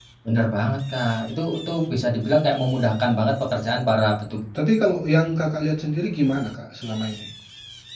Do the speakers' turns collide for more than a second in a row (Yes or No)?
No